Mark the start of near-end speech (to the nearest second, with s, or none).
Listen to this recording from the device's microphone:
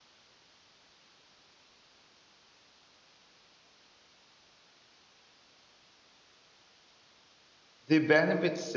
8 s